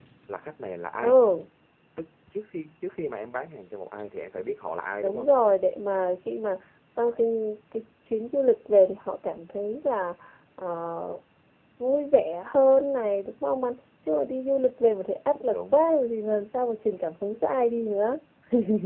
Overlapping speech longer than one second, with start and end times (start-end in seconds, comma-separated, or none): none